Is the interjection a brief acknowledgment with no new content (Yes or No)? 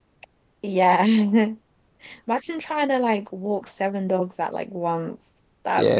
No